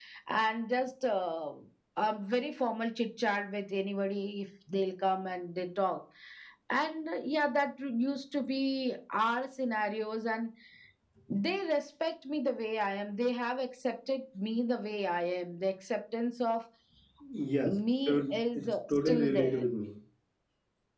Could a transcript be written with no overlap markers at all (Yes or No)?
No